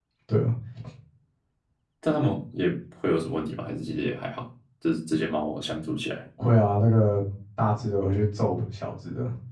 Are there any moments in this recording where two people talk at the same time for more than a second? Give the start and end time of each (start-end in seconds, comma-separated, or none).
none